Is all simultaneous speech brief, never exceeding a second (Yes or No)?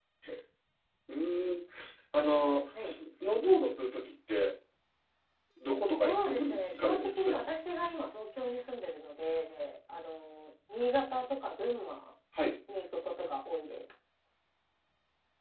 No